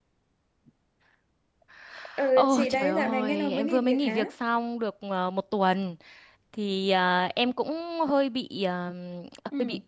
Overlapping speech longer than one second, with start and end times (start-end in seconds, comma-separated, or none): 2.4-4.2